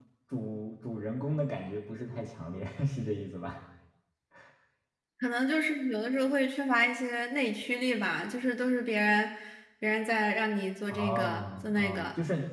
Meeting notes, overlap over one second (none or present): present